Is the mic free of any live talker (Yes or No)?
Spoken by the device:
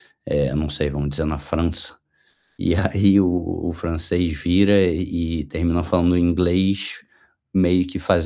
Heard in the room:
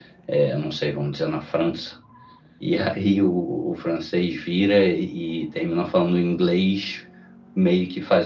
Yes